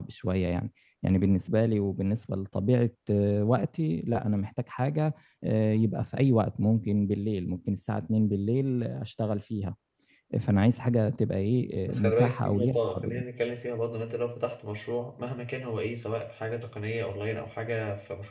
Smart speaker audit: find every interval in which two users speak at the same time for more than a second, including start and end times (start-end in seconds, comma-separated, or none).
11.9-13.2